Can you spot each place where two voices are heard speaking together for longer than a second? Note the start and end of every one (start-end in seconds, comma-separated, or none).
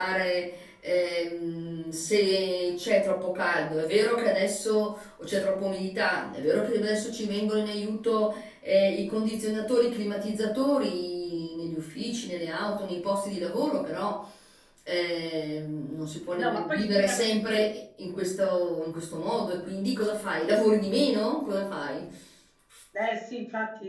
16.4-17.7